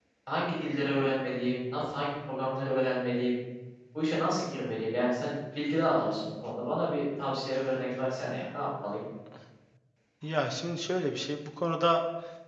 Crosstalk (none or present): none